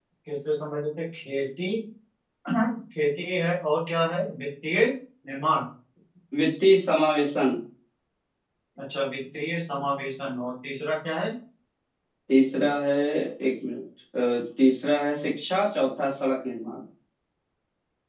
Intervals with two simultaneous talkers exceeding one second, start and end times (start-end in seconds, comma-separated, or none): none